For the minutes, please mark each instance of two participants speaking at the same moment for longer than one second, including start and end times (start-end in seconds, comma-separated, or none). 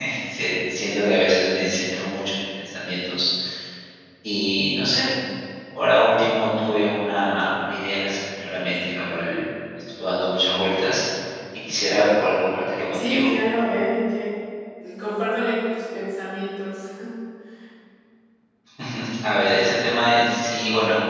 none